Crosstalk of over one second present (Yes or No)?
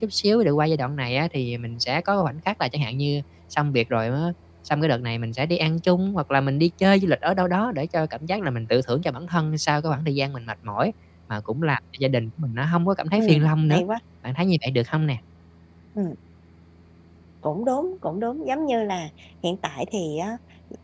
No